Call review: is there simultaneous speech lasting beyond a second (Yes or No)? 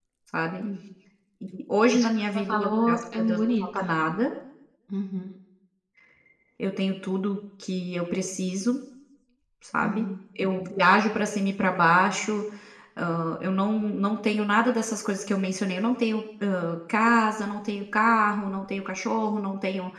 Yes